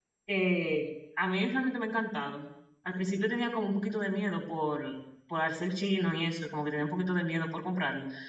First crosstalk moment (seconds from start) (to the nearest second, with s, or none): none